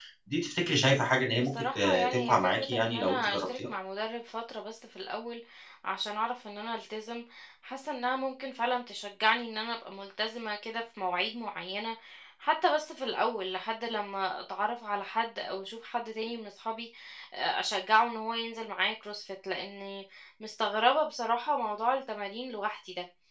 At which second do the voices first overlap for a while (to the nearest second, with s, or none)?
1 s